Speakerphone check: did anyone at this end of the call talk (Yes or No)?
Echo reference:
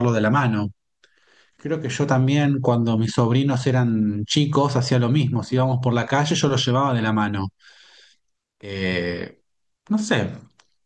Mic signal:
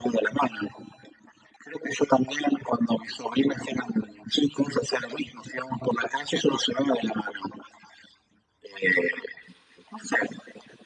No